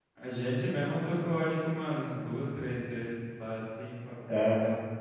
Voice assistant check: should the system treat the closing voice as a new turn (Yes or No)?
Yes